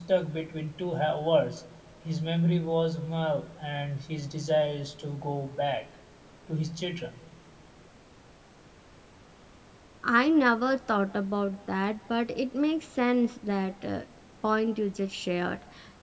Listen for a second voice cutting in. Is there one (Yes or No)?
No